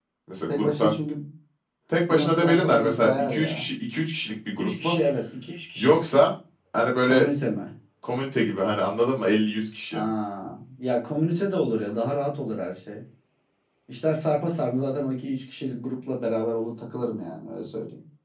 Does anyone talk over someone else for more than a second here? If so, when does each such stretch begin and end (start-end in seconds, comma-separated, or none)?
2.1-3.7